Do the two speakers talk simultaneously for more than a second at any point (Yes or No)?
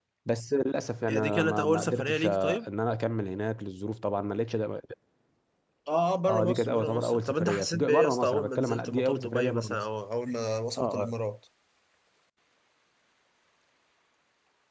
Yes